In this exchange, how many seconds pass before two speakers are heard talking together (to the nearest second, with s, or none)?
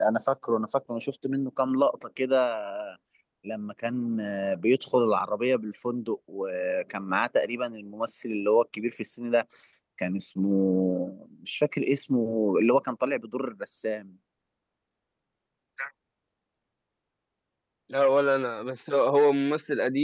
none